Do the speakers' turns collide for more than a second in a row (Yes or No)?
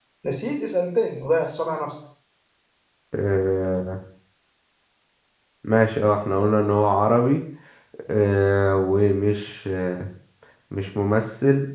No